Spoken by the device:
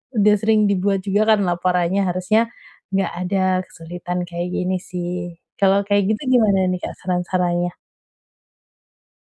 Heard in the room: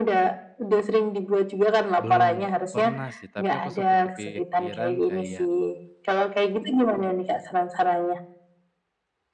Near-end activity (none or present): present